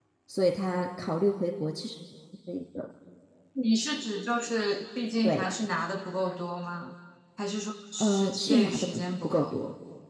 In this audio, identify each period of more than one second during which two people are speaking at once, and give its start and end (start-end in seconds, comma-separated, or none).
8.0-9.5